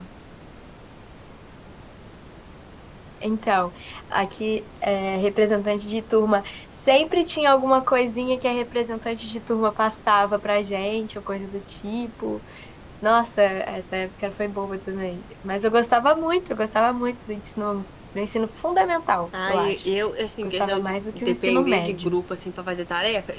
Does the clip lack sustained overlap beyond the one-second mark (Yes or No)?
No